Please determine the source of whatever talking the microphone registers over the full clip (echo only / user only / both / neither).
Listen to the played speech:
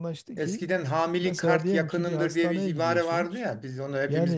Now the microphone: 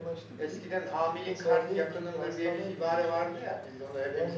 echo only